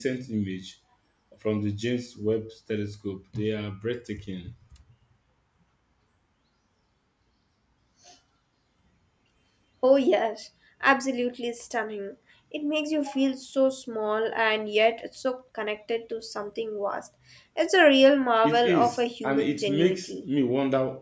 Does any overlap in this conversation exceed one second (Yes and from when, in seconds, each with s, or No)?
Yes, from 18.4 s